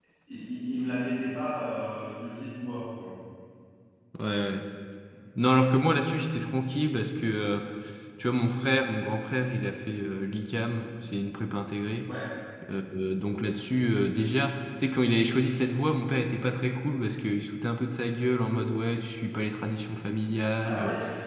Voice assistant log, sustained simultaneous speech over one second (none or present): none